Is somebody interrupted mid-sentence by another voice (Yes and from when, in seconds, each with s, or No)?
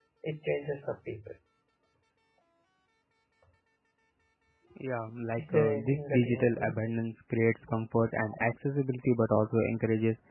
Yes, from 5.4 s